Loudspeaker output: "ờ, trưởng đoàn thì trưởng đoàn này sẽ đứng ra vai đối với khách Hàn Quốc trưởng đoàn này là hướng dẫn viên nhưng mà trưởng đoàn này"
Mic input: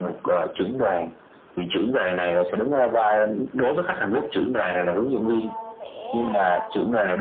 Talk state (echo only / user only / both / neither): both